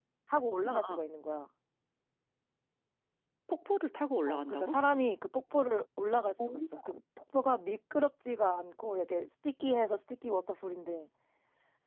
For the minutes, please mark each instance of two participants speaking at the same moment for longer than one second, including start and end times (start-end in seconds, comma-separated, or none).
none